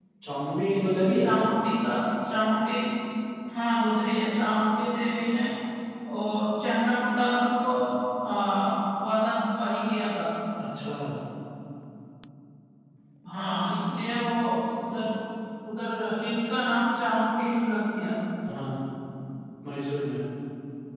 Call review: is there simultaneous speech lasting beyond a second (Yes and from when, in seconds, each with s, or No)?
No